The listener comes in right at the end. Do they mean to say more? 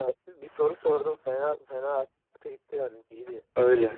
Yes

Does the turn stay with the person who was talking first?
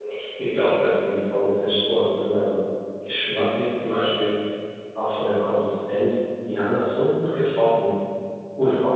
Yes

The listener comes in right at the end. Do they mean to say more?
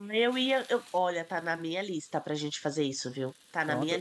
No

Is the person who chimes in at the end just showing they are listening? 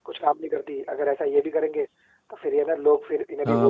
No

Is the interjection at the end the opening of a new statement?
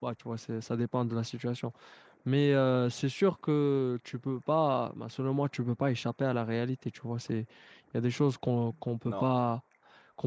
No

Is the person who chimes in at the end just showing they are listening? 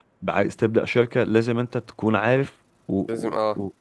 Yes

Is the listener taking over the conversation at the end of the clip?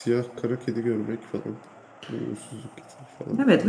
Yes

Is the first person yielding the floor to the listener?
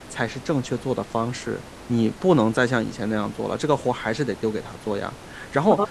Yes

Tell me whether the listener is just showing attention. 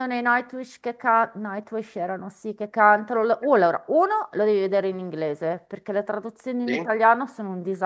Yes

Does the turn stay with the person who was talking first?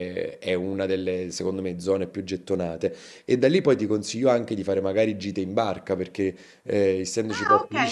No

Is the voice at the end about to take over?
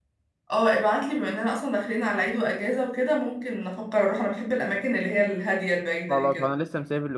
Yes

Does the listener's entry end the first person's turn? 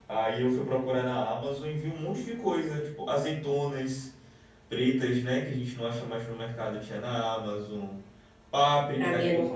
Yes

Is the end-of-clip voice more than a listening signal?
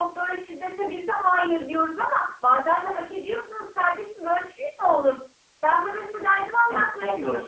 No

